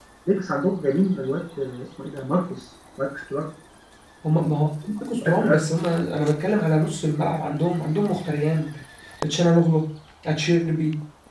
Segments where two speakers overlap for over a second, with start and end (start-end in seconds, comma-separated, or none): none